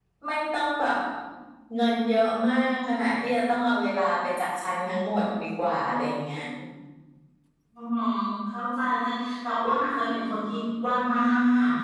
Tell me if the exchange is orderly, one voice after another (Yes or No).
Yes